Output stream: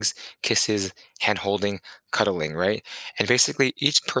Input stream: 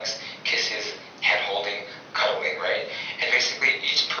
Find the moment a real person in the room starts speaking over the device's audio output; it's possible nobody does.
none

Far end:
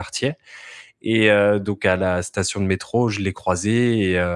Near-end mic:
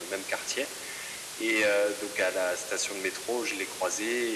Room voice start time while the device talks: none

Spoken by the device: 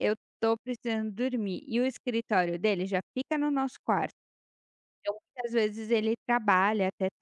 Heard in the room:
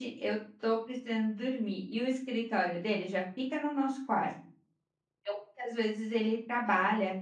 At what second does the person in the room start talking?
none

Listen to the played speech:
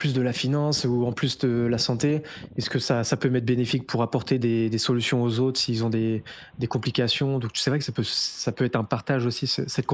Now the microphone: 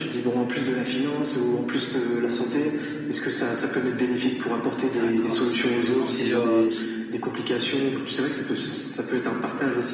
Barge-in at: 5 s

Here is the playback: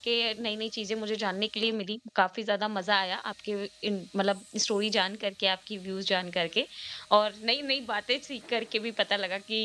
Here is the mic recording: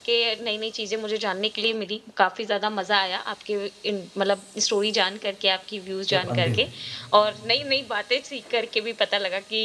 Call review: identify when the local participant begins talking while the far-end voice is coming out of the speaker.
6 s

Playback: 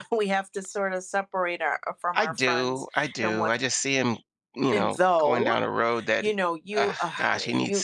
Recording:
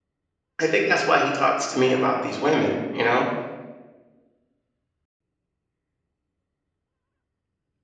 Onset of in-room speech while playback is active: 1 s

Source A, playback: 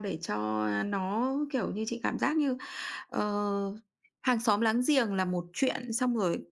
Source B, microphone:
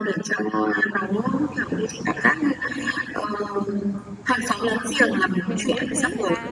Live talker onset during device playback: 5 s

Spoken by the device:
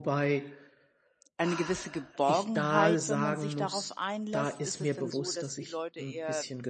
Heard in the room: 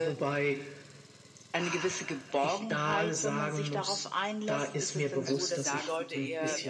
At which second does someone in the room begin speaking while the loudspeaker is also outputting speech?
5 s

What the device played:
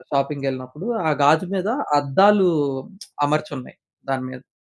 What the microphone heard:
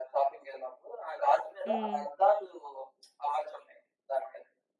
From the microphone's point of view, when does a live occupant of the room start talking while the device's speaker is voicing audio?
2 s

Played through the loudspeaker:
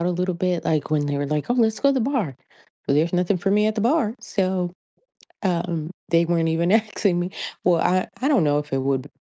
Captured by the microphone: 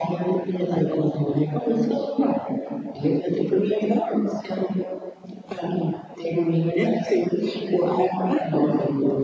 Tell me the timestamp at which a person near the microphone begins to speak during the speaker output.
none

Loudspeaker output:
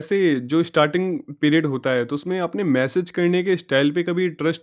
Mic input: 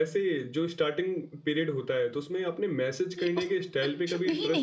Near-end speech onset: 3 s

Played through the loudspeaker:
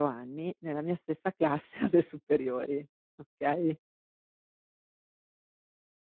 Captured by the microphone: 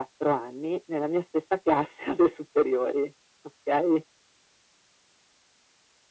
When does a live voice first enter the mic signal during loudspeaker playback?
none

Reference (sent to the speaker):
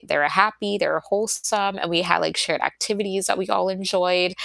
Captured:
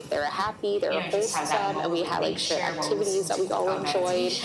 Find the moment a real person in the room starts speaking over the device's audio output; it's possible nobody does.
1 s

